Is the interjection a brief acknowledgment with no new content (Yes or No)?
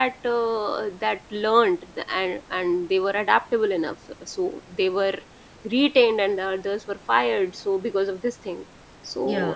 Yes